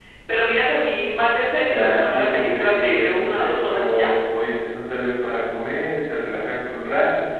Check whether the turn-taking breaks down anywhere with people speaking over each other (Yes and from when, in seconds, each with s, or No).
Yes, from 1.7 s